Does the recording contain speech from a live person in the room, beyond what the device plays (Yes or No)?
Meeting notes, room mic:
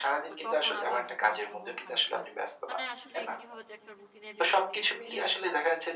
Yes